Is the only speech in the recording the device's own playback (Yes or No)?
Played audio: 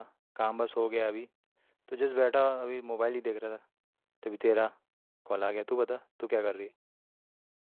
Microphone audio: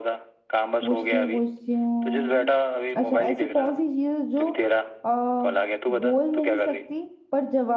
No